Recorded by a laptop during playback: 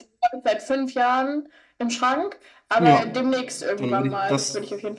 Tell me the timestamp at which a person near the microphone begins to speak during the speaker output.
2.8 s

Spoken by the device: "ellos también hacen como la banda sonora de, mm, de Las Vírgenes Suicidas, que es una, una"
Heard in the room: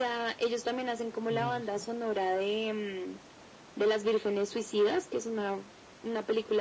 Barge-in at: 1.3 s

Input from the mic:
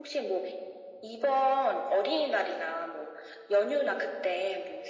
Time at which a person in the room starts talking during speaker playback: none

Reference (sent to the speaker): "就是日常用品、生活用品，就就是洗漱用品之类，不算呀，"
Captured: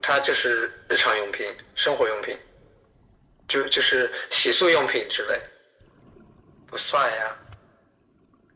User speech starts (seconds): none

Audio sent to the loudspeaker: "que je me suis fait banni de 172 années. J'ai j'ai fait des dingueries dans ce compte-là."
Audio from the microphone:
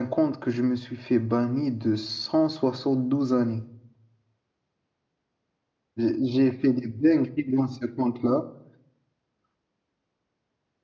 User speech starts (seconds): none

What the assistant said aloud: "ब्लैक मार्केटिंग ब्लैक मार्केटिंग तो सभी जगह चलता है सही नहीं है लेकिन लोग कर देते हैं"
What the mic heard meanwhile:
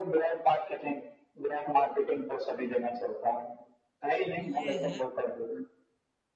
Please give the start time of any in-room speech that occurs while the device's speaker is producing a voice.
4.4 s

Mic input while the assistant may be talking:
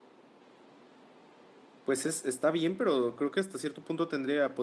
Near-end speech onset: 1.8 s

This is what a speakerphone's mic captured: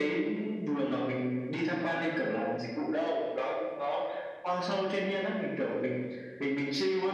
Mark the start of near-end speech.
none

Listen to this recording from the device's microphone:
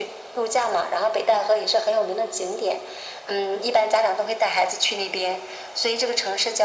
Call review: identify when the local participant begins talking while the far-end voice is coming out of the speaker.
none

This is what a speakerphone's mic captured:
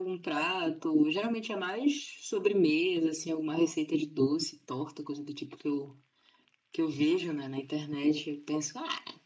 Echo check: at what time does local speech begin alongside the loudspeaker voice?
none

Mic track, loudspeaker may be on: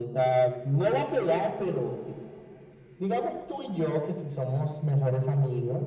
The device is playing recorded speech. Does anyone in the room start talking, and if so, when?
none

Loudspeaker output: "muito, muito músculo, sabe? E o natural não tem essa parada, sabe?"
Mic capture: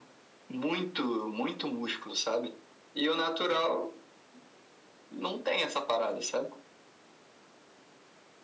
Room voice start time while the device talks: none

